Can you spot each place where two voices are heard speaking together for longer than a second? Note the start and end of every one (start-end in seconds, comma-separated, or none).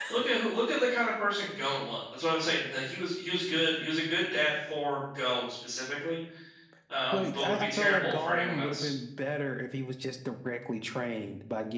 7.1-8.9